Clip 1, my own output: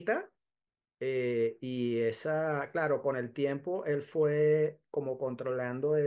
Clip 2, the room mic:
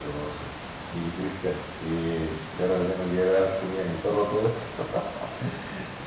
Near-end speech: present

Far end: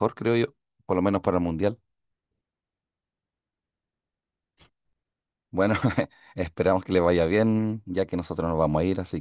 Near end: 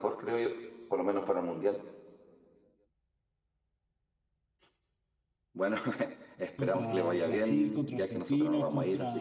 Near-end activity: present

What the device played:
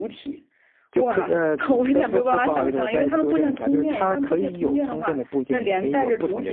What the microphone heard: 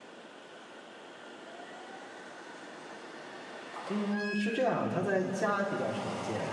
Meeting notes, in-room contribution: present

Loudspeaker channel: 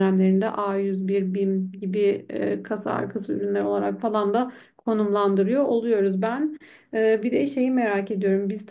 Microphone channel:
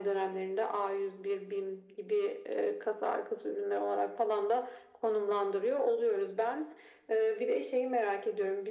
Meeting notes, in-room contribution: none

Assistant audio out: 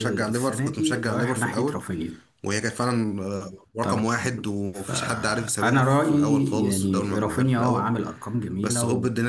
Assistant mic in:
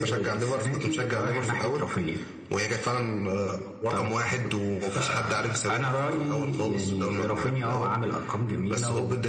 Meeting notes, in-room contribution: none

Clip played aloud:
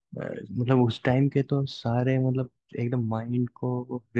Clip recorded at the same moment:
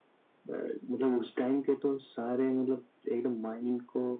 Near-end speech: none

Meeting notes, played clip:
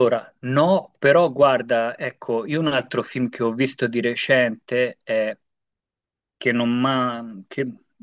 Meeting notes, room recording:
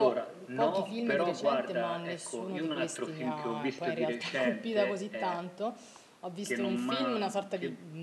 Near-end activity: present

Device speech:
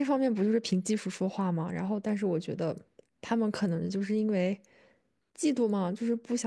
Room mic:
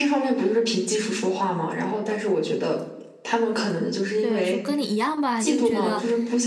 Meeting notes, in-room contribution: present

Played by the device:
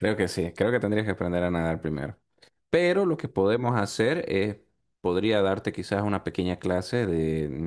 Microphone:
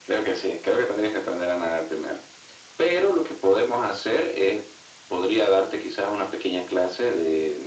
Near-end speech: none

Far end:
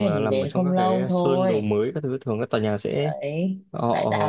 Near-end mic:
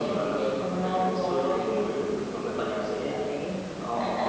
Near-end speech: none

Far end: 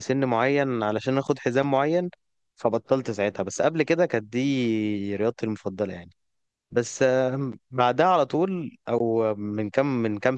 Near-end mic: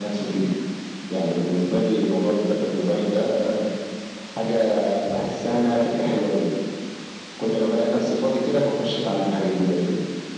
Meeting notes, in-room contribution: present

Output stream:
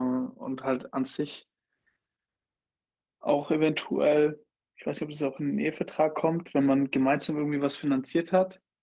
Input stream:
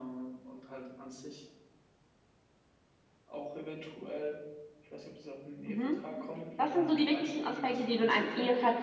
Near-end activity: present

